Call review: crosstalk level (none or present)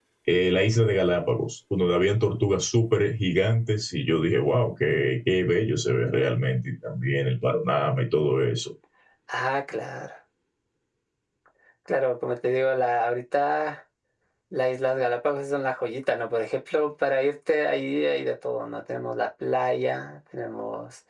none